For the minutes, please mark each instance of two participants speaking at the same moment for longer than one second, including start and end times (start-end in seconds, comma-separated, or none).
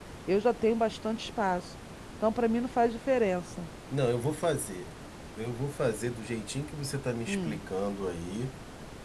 none